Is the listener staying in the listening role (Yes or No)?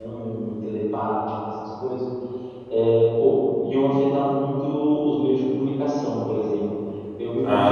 Yes